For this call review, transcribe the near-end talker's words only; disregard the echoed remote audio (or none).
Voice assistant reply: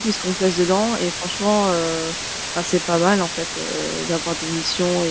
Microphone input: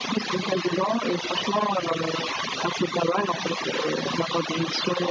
none